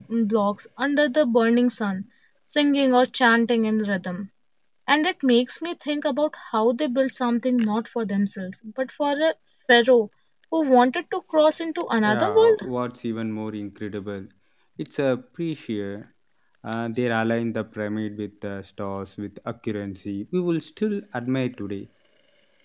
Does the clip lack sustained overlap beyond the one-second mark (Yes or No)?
Yes